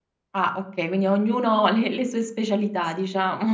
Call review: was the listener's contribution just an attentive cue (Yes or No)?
No